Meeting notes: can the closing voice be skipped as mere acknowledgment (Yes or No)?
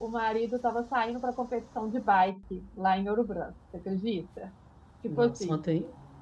No